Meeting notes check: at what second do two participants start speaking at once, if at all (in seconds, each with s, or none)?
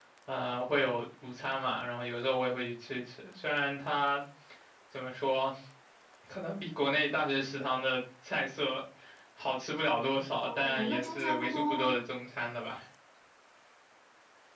10.4 s